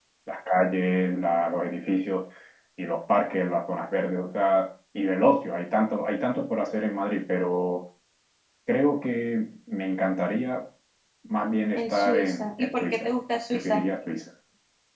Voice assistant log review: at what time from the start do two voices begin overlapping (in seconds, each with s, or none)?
11.8 s